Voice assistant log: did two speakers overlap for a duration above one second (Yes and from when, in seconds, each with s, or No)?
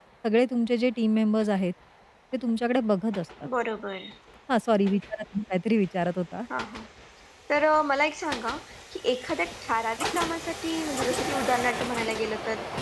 No